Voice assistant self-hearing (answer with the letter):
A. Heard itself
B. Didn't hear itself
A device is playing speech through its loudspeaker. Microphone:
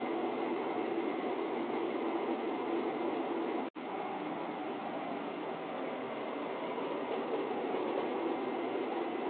B